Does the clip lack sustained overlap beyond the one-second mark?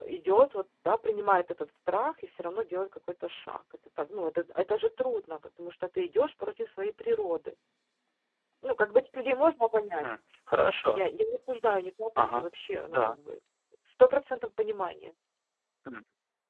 Yes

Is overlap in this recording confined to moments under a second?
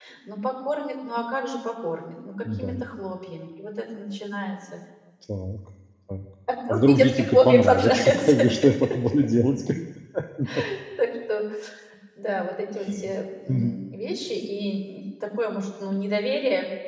No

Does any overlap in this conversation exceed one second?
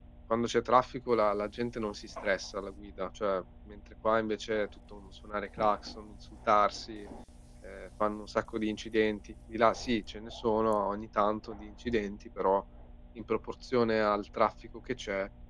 No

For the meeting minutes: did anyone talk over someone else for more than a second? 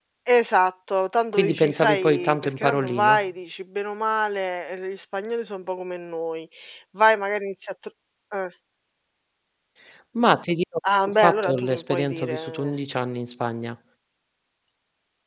Yes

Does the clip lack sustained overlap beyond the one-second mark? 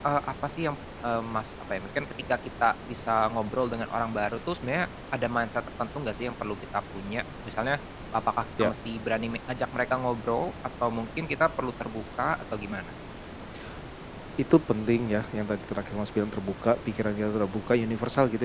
Yes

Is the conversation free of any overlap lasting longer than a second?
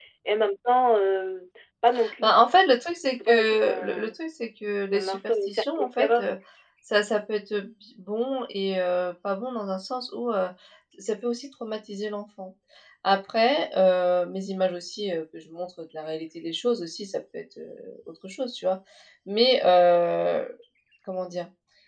No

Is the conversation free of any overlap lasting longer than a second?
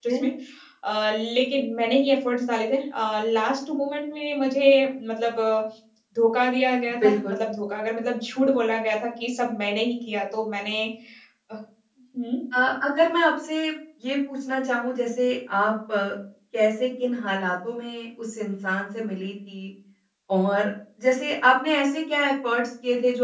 Yes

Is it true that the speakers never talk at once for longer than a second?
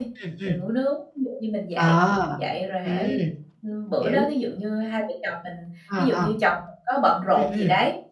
Yes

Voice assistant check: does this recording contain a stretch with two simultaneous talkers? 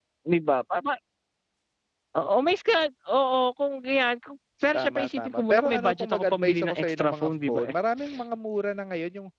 Yes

